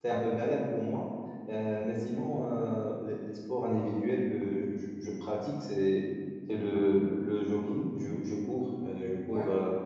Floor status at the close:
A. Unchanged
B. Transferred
A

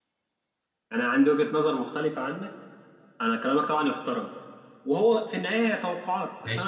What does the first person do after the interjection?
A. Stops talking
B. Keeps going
B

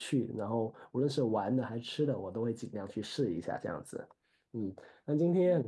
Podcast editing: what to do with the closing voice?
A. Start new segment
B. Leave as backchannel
B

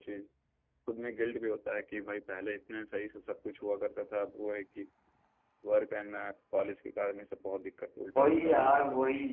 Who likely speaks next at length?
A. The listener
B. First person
A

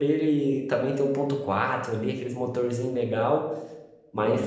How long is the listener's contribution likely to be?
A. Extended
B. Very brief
B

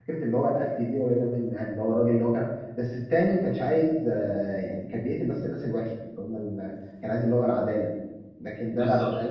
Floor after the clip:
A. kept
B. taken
A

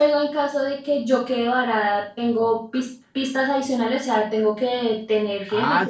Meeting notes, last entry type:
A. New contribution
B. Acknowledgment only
A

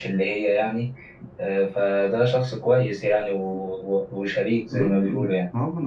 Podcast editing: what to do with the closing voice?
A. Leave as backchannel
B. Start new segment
B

